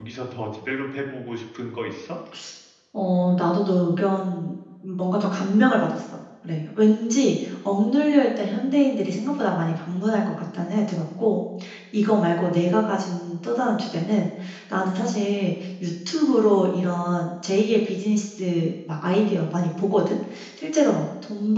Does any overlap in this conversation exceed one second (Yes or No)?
No